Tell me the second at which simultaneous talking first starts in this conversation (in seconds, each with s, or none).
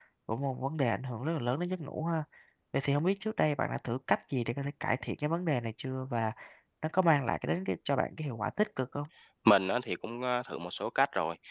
none